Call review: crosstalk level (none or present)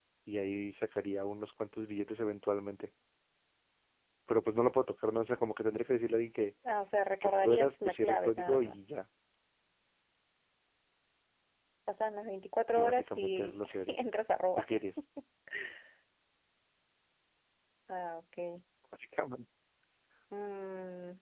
present